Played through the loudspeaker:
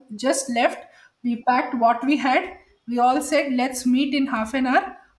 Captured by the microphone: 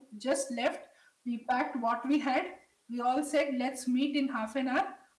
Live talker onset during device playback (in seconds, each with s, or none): none